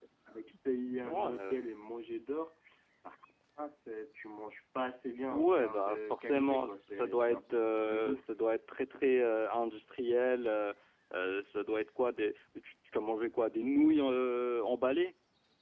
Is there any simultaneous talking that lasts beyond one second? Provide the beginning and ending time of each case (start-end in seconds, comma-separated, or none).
5.3-8.2